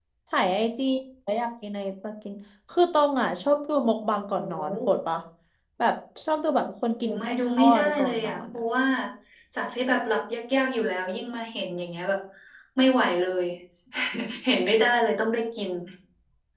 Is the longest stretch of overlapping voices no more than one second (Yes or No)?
No